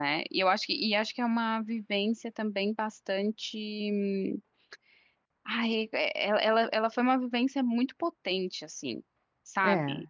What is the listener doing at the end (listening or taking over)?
listening